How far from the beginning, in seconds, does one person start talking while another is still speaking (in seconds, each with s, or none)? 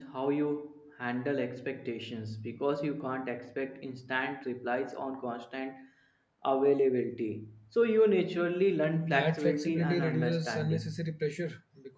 9.0 s